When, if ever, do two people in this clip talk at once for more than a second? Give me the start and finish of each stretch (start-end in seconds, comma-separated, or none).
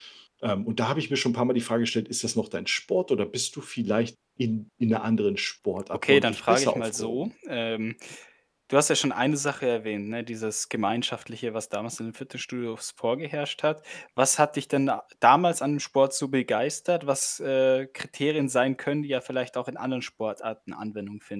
5.9-7.3